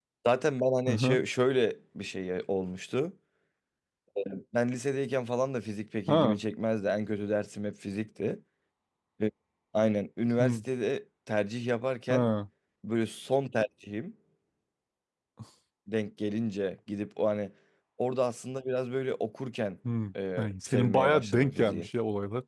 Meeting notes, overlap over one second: present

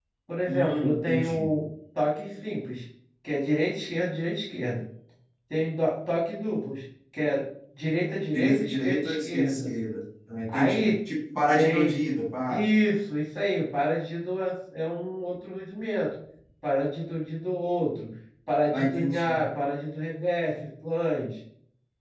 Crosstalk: present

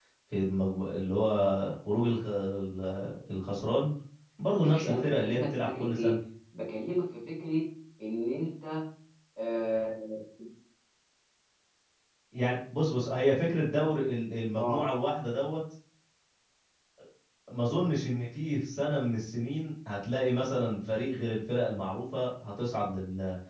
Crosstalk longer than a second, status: present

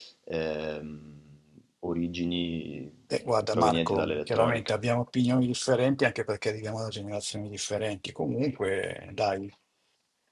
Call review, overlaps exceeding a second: present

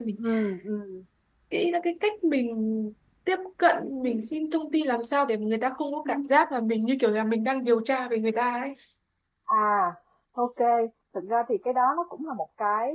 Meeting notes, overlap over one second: none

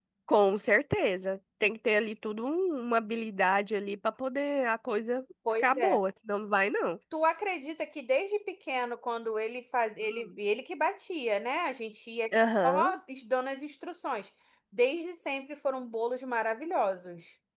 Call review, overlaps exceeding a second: none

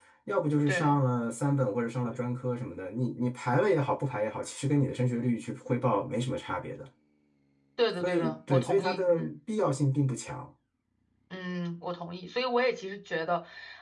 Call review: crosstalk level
present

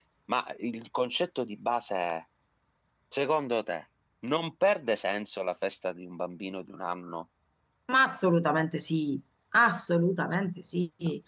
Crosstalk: none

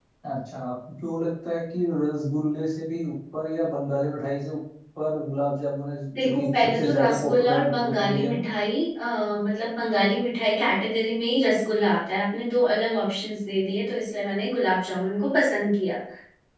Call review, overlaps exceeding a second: present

